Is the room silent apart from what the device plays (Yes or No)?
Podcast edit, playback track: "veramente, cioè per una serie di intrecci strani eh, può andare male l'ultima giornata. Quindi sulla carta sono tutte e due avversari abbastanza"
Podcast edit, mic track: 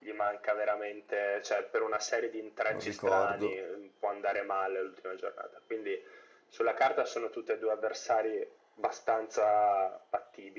No